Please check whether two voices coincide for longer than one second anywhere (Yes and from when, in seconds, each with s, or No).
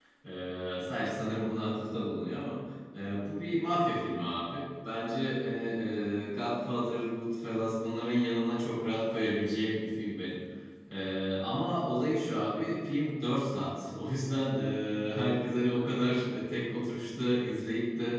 No